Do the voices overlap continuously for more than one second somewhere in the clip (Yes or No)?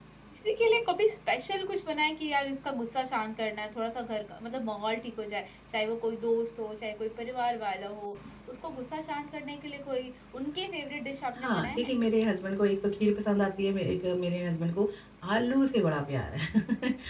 No